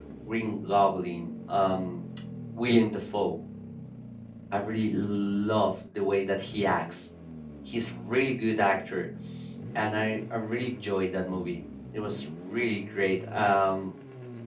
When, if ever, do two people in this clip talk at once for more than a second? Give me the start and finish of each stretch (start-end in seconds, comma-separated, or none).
none